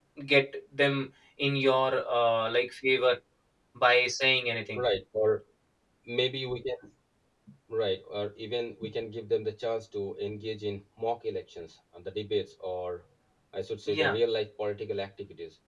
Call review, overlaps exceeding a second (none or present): none